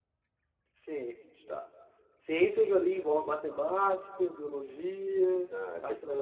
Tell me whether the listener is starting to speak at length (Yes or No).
Yes